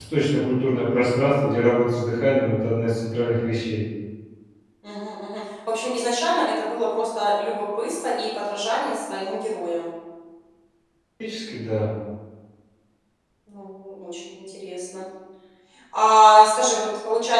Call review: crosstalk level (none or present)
none